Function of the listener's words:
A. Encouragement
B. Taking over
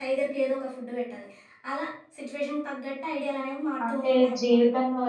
B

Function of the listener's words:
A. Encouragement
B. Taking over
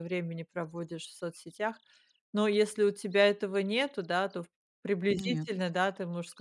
A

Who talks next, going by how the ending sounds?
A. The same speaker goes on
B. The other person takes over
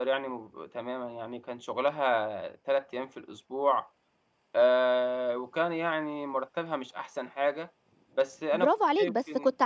B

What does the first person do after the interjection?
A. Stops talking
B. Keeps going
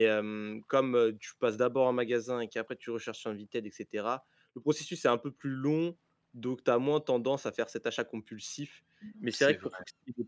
B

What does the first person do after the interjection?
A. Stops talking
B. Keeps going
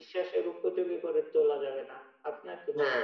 A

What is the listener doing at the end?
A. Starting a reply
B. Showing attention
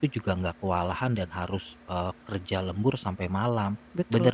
B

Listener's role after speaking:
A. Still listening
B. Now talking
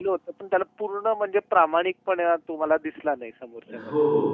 B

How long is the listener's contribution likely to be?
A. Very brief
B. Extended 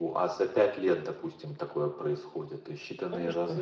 B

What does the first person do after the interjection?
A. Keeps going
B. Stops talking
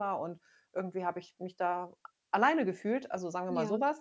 A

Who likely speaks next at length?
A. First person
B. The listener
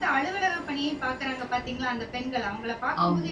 A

